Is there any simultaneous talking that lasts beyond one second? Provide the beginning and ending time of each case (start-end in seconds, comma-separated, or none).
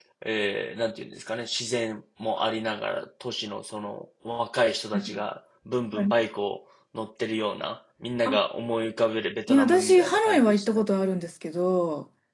9.5-10.8